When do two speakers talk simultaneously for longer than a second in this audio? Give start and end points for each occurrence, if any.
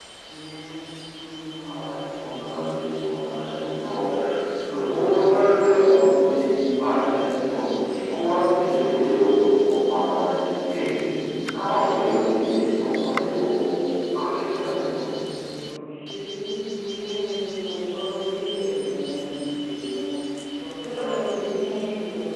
none

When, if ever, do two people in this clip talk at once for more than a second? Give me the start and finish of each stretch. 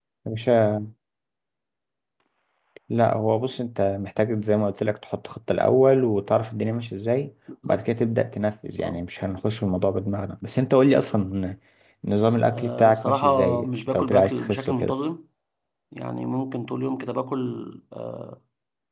12.5-14.9

